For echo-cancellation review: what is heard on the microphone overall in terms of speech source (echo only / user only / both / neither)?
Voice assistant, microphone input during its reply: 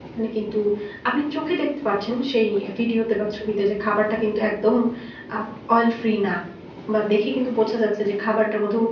user only